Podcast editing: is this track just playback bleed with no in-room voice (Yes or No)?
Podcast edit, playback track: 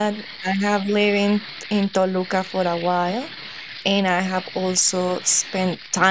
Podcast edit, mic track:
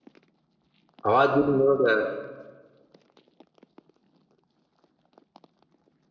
No